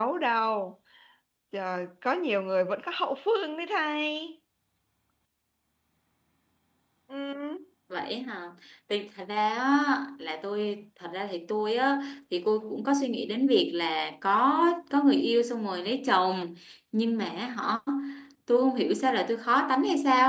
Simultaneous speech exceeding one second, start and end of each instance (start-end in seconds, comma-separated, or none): none